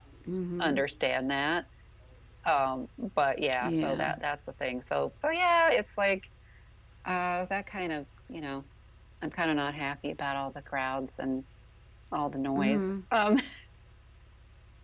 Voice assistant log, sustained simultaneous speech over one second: none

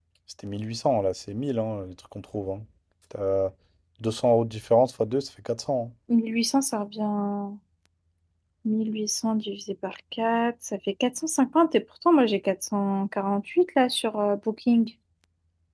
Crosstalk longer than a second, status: none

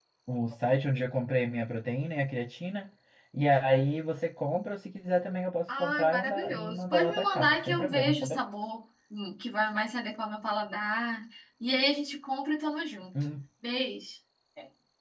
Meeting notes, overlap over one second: present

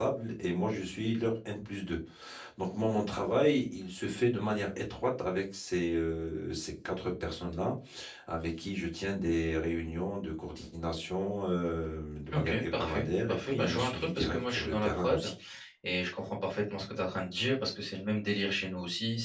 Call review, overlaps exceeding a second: present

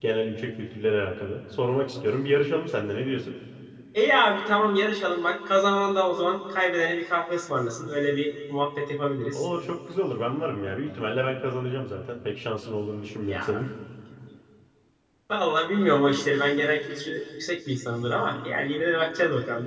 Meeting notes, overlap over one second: none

